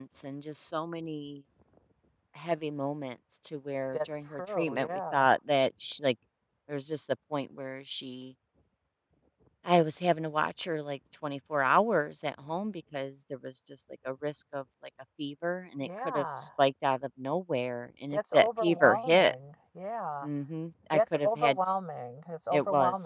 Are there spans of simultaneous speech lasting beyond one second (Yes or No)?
Yes